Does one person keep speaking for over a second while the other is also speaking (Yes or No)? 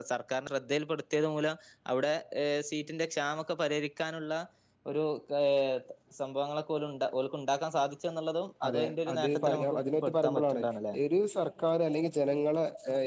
Yes